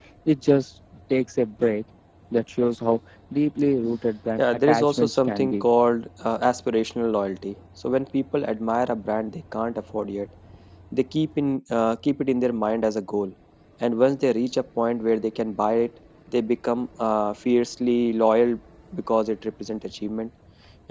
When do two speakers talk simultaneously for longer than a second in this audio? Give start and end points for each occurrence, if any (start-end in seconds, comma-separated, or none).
4.4-5.7